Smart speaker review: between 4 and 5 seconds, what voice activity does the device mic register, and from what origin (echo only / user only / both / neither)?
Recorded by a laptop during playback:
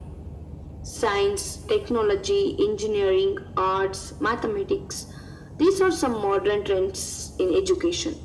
echo only